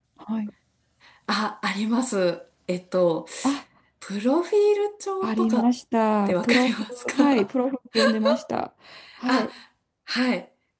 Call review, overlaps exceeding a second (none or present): present